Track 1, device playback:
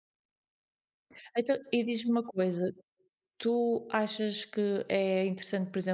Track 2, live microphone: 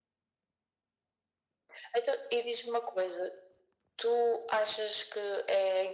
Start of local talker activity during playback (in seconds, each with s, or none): none